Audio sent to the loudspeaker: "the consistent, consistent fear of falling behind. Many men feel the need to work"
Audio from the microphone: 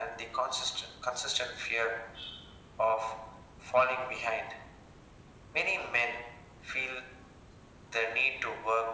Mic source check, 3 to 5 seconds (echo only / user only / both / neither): echo only